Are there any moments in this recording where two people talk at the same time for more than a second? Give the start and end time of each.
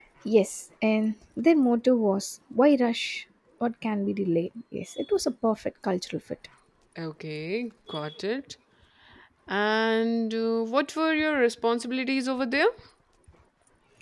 none

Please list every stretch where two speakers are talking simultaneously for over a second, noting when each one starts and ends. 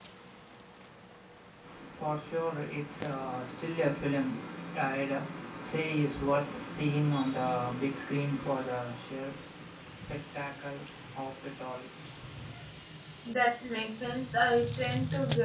none

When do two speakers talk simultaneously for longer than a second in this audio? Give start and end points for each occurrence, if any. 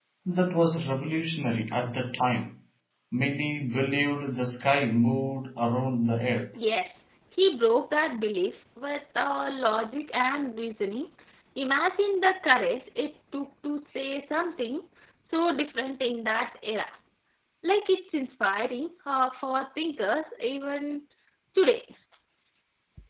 none

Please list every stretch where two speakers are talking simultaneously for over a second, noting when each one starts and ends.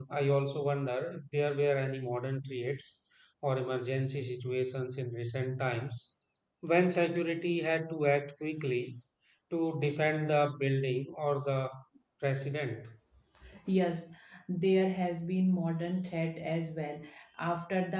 none

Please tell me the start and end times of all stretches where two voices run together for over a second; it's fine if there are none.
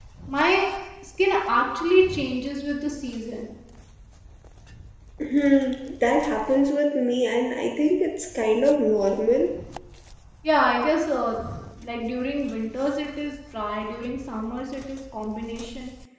none

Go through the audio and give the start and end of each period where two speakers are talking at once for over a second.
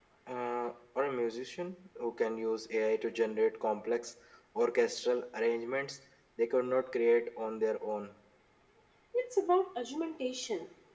none

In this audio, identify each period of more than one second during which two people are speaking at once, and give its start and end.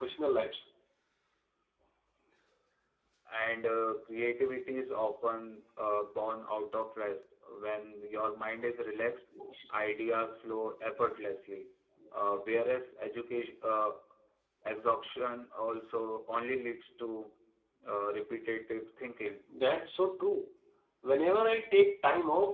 none

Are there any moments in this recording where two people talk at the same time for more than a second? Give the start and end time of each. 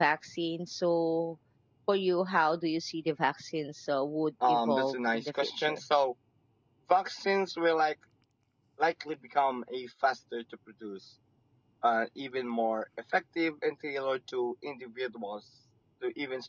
4.4-5.8

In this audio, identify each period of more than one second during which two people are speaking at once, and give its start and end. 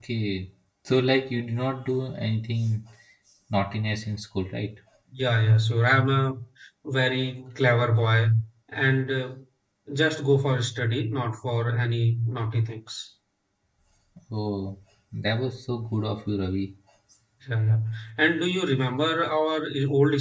none

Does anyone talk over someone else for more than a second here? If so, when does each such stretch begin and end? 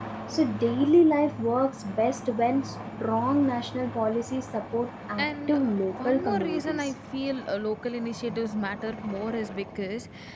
5.2-6.9

